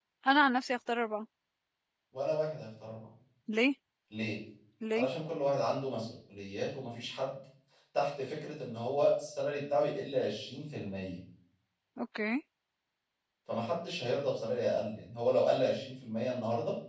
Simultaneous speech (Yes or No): No